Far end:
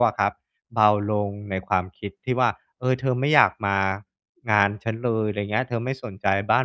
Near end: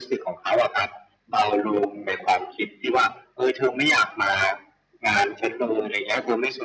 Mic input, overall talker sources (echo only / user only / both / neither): echo only